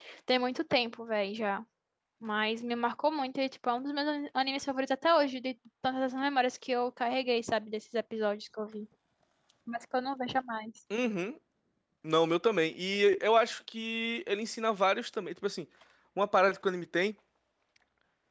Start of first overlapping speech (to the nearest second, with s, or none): none